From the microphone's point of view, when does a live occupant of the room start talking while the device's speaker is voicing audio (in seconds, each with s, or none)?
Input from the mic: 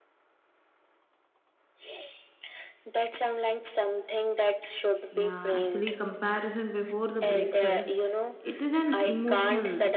5.1 s